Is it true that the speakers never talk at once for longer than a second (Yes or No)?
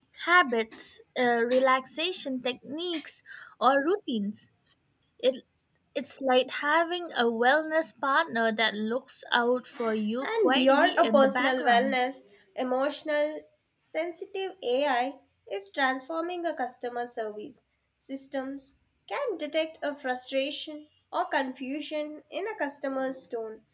No